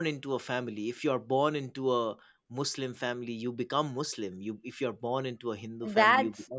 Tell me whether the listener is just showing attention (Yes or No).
No